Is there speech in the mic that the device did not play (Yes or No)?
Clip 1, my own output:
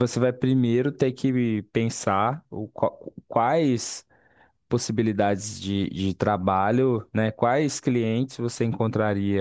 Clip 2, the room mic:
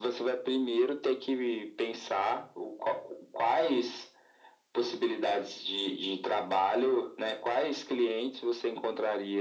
No